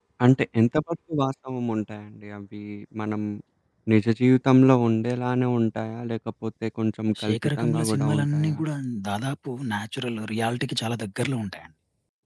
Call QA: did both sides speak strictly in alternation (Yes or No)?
No